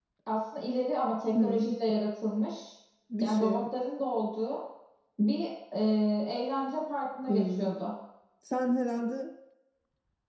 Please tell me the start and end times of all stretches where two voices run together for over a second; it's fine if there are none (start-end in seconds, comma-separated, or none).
none